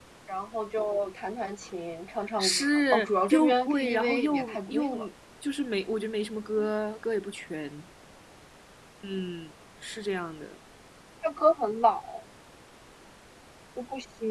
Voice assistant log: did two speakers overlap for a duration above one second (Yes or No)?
Yes